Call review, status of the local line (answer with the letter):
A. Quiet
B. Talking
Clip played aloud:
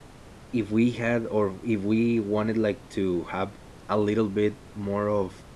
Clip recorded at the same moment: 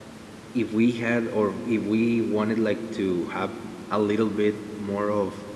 A